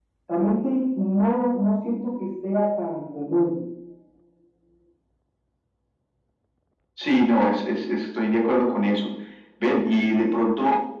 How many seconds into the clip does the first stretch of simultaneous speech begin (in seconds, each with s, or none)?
none